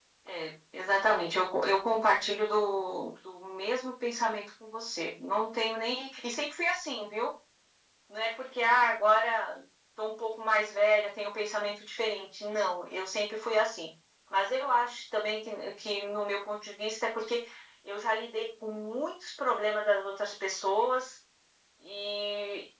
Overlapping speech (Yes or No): No